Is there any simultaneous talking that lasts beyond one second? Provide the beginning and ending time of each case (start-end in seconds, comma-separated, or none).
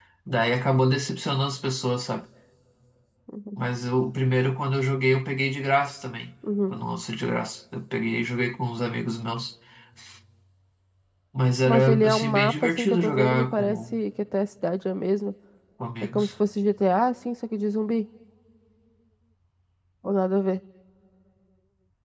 11.7-13.9